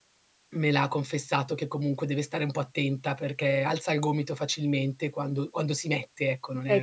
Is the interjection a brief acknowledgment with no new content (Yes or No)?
No